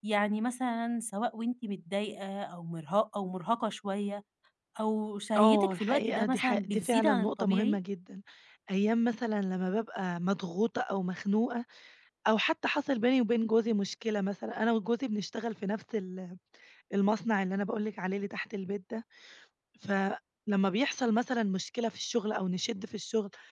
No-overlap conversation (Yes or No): No